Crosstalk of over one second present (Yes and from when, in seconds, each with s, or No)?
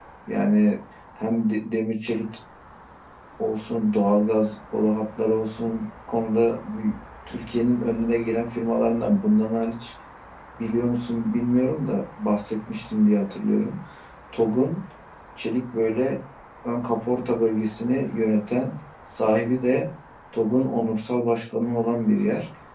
No